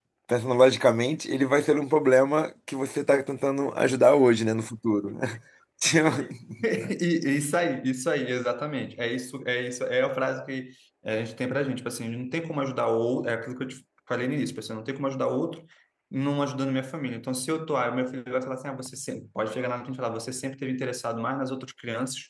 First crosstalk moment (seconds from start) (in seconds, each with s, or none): none